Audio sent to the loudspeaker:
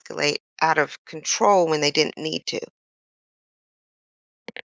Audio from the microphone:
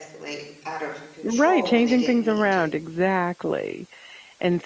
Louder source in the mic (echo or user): user